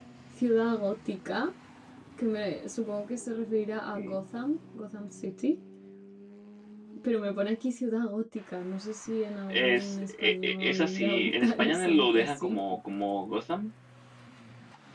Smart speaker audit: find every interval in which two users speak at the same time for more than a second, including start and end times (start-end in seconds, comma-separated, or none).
9.5-12.6